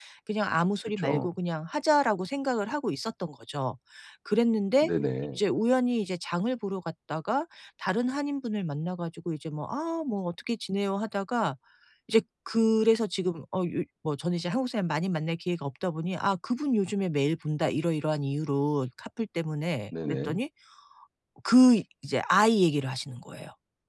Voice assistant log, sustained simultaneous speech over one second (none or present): none